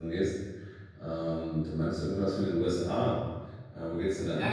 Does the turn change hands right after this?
Yes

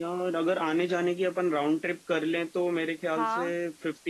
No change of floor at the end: Yes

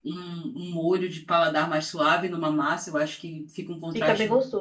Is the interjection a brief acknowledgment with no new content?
No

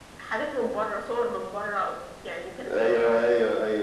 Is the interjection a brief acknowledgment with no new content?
No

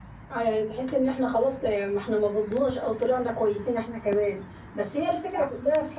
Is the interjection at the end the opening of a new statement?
No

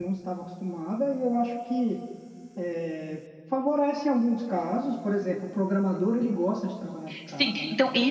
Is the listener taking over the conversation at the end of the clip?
Yes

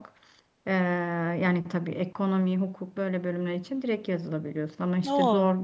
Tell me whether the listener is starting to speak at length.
No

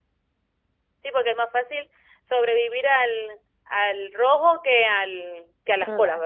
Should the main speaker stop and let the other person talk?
Yes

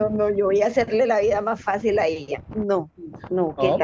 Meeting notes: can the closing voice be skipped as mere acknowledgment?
Yes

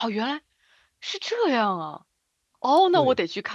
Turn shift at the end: No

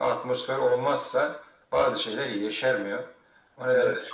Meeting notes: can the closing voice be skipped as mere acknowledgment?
Yes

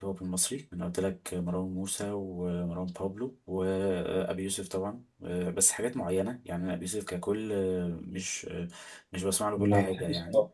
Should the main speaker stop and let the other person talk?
Yes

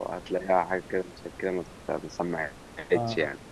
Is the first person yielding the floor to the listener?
Yes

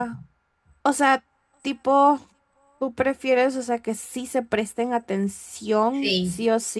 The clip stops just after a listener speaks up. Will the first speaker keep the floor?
Yes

